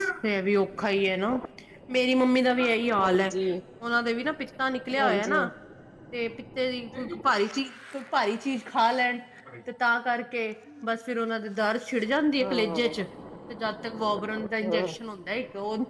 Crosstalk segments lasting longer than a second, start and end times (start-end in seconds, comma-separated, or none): none